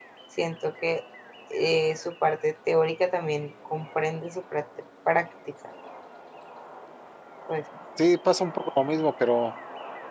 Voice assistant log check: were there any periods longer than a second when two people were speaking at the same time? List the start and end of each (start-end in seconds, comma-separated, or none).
none